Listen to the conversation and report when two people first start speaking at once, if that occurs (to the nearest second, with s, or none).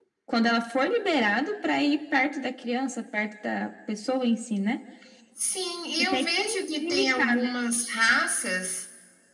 6 s